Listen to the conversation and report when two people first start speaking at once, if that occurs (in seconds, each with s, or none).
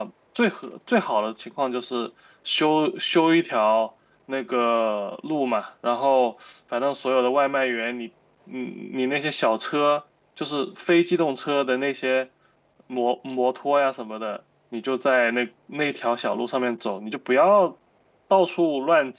none